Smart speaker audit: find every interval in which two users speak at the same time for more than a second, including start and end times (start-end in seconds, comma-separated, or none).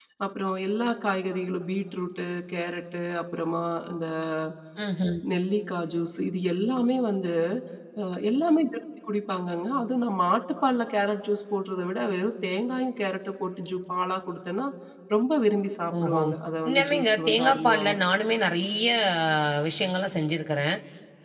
16.6-18.0